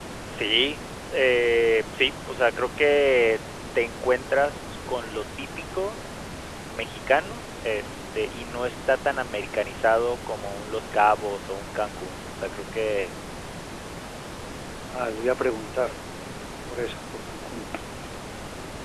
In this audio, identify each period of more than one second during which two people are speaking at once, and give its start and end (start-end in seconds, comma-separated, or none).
none